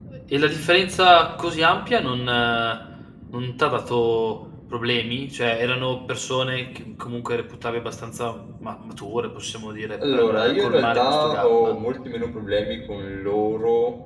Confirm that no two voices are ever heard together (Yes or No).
No